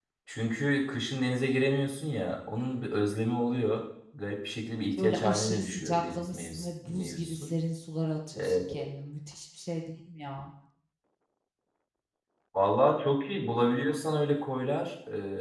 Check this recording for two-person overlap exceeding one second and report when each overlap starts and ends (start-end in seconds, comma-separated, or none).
5.0-7.5